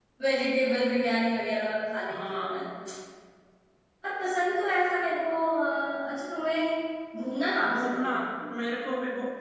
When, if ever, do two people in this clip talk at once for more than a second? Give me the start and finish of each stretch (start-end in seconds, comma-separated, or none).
none